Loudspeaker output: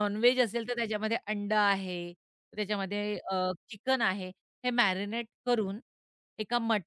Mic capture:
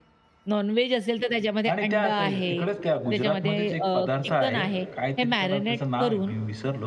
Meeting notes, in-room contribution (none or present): present